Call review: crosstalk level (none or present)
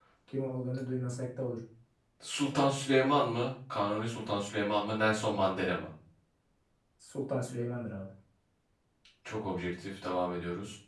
none